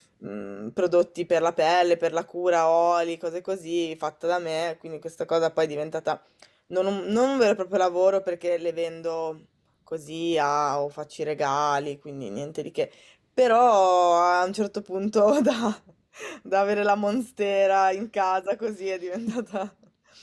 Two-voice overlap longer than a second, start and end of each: none

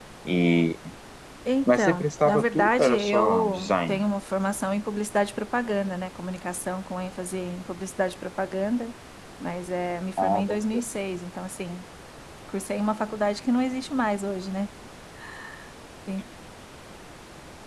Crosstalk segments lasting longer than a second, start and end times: 1.7-4.0

